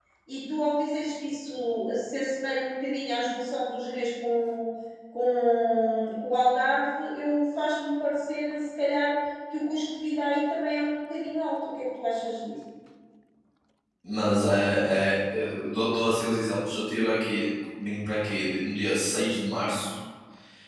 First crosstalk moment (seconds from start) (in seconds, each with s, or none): none